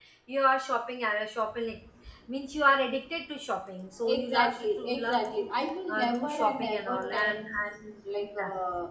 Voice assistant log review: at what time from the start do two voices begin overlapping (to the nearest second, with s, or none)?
4 s